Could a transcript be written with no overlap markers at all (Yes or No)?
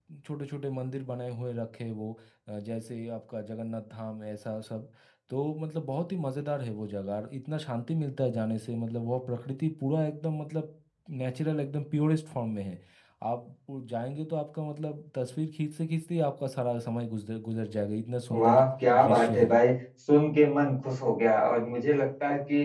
No